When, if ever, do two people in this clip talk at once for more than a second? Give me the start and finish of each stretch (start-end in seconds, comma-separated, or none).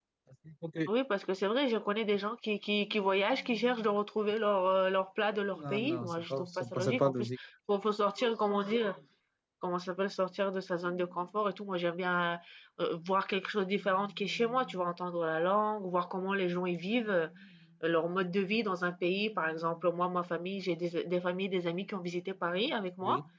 5.5-7.3